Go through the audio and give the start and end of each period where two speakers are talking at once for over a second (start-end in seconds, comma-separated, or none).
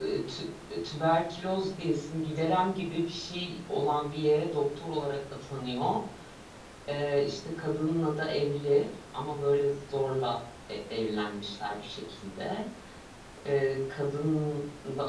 none